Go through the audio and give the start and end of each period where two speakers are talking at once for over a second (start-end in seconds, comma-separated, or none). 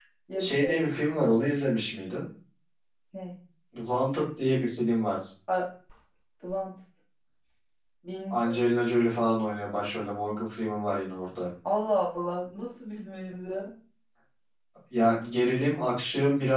none